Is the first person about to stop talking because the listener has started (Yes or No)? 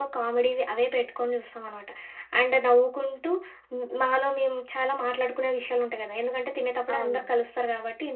No